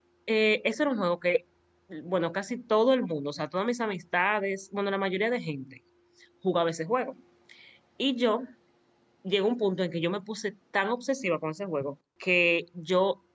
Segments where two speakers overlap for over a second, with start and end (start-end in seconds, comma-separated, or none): none